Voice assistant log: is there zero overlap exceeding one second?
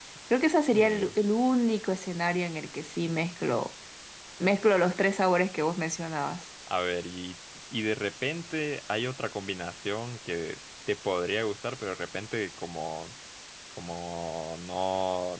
Yes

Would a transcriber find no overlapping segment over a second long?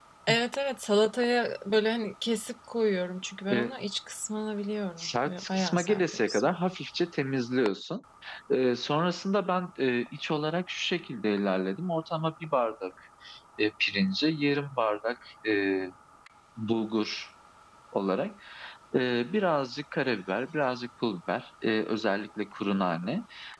No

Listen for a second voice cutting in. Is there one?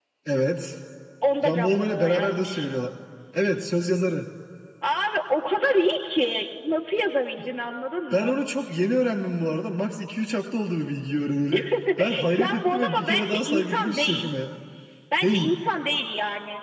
Yes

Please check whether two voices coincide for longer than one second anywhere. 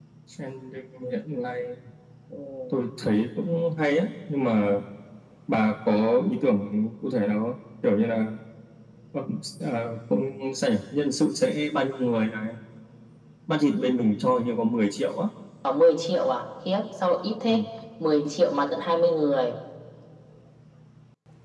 No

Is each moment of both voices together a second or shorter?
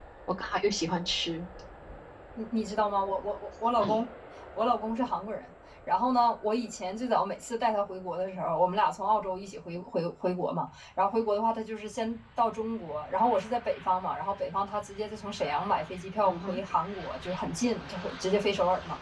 Yes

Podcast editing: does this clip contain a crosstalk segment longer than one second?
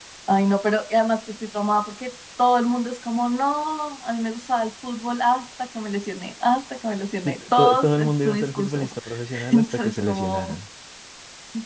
Yes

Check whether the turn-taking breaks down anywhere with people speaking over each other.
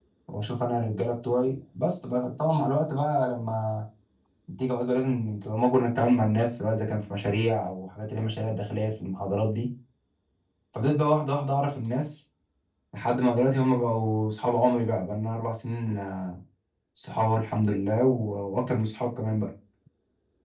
No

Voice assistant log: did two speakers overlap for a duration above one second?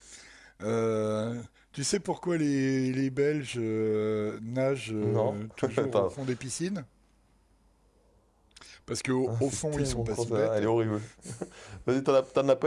Yes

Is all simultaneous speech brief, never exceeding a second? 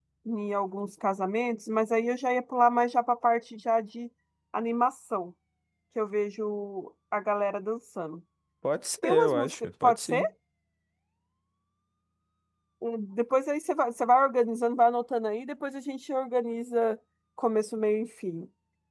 No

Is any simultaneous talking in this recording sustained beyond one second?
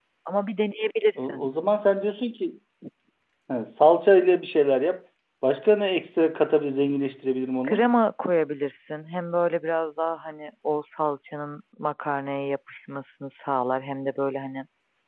No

